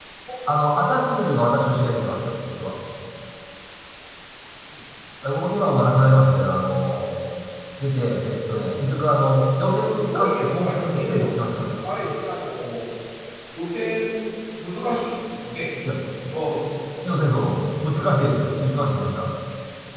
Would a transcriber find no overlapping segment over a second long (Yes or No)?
No